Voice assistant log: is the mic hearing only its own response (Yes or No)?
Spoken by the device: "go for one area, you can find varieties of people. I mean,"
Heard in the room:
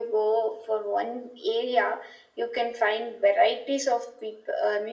Yes